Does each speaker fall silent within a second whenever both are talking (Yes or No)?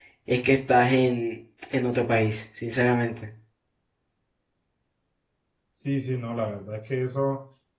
Yes